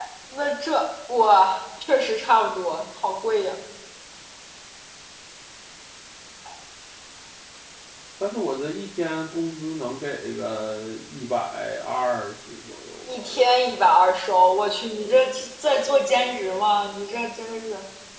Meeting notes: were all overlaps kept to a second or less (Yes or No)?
Yes